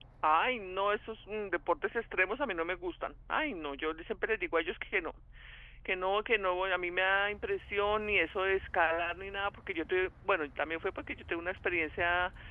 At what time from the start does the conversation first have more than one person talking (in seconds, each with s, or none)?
none